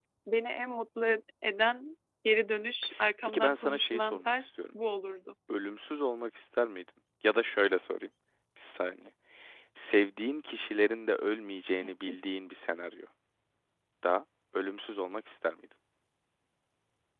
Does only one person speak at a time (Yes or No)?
No